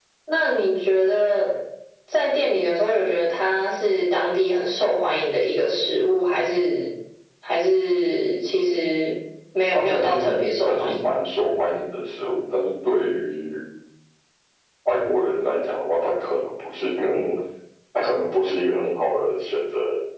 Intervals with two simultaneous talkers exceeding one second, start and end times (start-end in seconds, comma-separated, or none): 9.7-11.0